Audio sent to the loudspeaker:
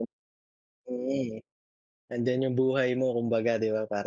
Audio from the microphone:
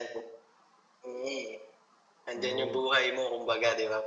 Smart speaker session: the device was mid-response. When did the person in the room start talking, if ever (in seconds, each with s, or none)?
2.3 s